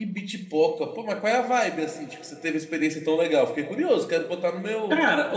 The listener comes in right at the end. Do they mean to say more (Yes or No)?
Yes